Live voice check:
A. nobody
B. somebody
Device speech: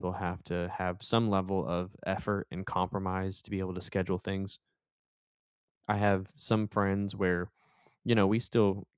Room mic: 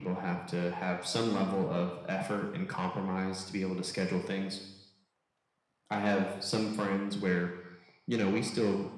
A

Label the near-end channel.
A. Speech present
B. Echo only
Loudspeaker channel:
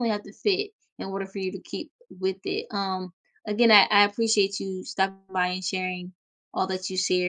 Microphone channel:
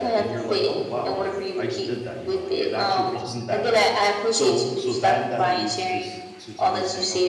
A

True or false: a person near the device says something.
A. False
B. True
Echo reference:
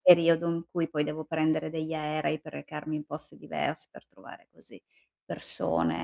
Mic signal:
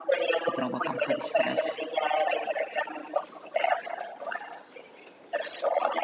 B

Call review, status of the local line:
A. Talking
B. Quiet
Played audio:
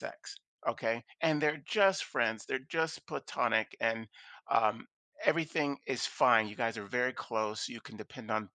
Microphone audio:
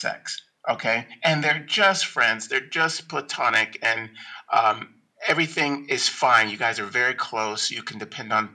B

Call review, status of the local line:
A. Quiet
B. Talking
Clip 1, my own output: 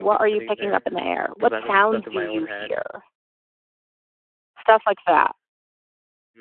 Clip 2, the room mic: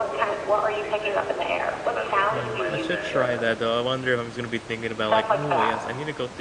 B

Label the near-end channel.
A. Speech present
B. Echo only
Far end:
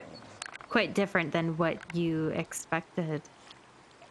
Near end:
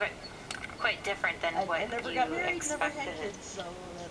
A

